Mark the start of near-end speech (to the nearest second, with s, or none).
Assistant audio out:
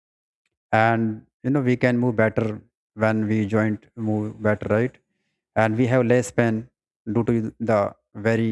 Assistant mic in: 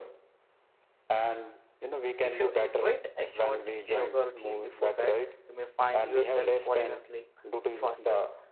2 s